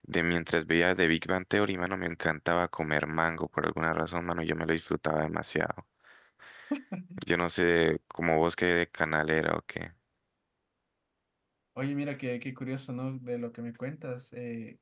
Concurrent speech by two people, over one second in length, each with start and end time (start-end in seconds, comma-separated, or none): none